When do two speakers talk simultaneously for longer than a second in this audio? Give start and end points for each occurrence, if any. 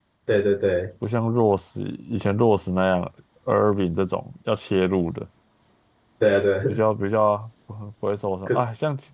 none

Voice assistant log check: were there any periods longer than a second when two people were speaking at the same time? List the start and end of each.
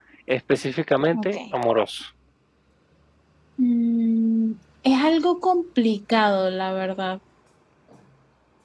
none

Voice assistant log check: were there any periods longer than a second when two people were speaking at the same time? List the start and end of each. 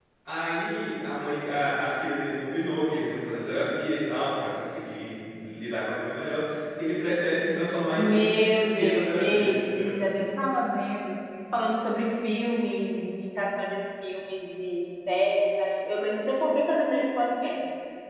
8.0-9.9

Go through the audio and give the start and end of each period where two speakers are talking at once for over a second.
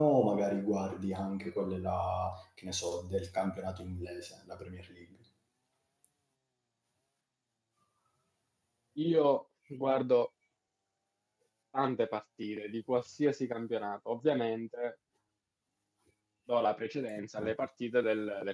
none

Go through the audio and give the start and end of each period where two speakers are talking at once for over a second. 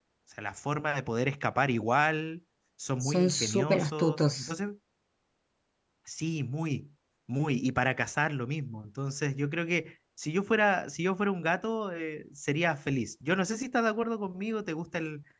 3.0-4.5

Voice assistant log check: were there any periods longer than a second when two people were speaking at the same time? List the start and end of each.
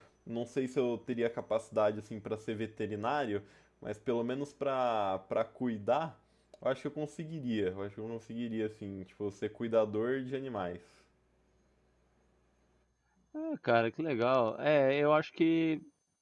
none

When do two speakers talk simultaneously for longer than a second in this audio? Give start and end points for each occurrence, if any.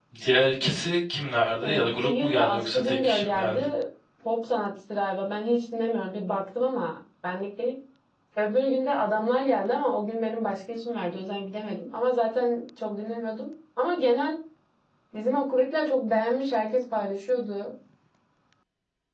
1.6-3.7

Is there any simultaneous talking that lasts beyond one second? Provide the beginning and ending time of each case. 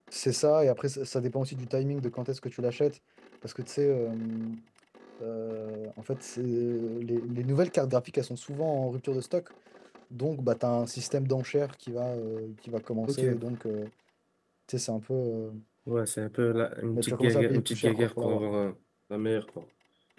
16.9-18.4

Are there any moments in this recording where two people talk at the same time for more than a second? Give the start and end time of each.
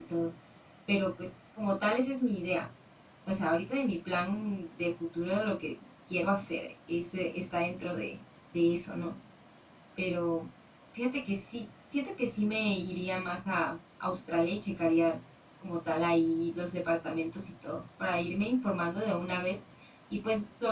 none

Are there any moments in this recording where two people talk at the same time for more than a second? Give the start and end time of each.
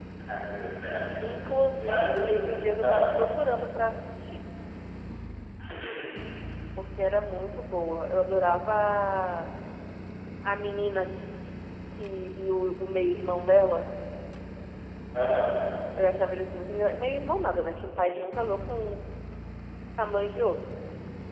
1.8-3.2

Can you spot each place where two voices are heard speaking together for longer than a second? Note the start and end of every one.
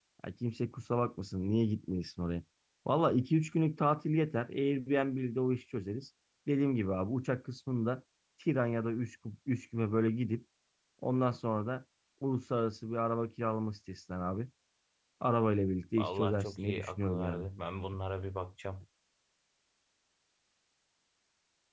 16.0-17.4

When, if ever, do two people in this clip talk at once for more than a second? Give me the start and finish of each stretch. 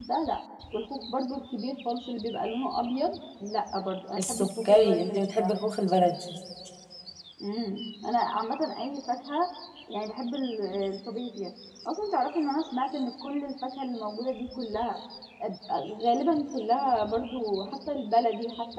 4.2-5.5

